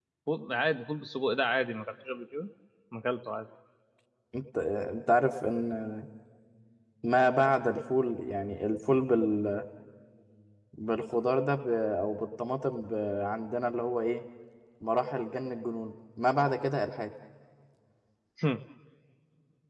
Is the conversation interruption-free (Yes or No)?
Yes